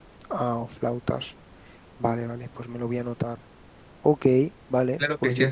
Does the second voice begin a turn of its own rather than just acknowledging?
Yes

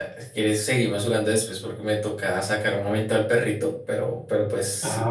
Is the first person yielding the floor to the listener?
Yes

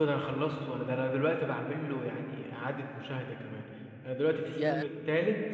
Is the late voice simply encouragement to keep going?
Yes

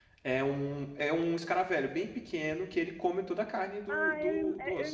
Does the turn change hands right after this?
Yes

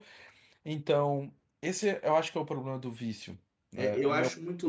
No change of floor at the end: No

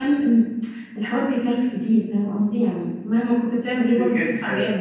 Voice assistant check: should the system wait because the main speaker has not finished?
No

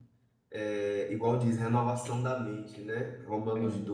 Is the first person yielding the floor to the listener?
No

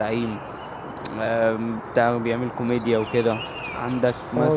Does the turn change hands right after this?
No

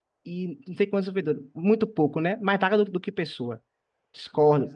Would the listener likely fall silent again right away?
Yes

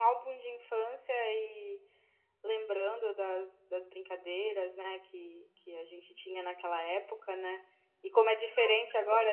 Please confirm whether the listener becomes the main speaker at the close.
No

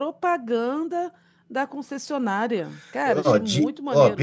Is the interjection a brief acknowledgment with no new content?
No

